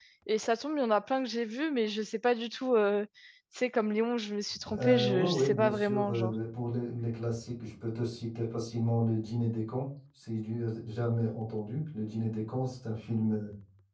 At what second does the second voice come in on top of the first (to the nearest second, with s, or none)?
5 s